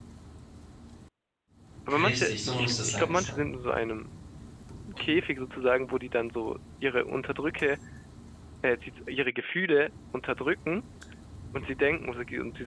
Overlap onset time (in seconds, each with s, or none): 1.9 s